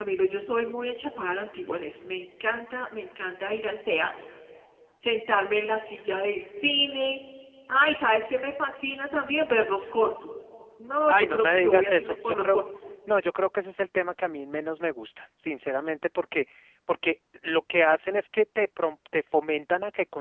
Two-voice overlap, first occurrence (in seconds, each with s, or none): 11.0 s